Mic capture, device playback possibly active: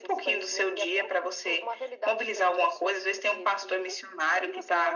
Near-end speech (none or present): none